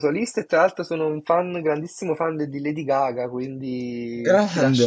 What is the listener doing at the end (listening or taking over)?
listening